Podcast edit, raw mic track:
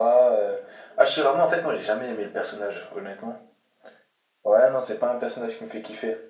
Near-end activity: none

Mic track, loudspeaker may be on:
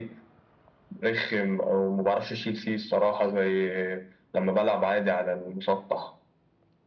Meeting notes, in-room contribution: none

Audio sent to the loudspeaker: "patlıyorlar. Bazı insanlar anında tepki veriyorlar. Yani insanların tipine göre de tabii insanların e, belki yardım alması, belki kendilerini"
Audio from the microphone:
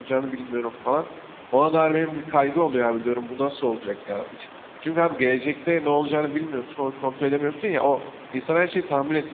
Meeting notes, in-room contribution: present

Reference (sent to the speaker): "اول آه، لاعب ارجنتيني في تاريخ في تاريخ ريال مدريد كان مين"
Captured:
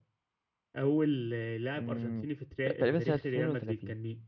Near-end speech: present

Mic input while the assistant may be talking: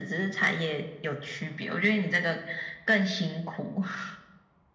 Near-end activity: none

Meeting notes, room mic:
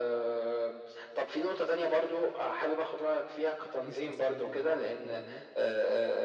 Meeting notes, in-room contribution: present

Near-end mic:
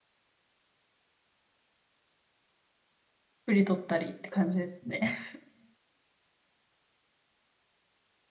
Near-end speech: present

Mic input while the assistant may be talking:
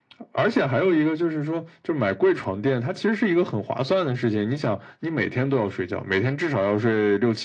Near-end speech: none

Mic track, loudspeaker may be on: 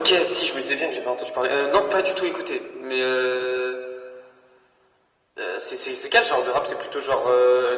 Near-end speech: none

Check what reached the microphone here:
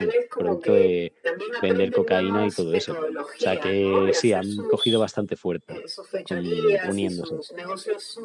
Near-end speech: present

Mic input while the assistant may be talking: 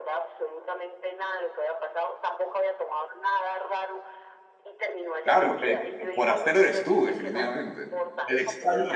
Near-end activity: present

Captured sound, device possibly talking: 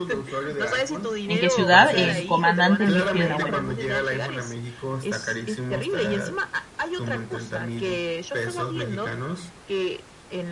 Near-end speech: present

